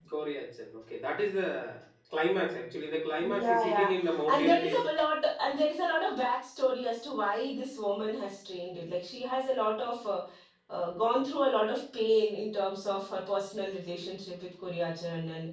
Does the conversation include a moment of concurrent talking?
Yes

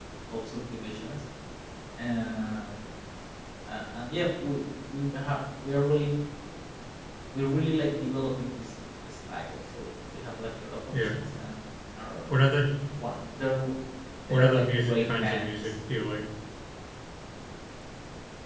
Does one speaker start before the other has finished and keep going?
Yes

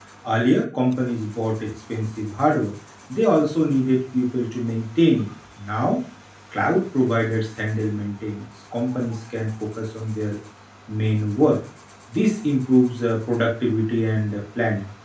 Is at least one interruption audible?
No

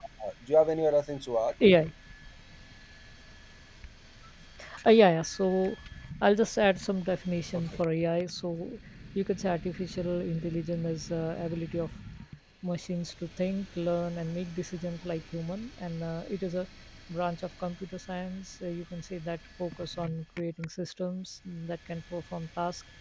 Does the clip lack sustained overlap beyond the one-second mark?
Yes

